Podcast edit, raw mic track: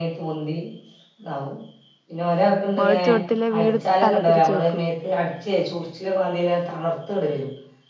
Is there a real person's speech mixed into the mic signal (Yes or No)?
Yes